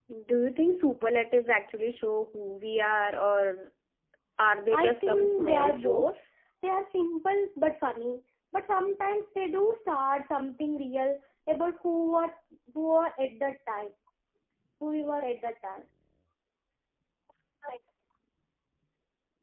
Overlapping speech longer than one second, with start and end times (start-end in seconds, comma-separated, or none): 4.7-6.2